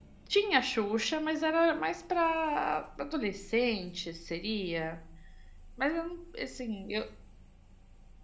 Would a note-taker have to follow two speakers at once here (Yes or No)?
No